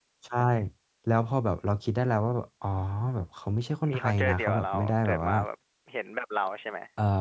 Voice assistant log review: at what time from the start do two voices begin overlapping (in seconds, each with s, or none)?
3.9 s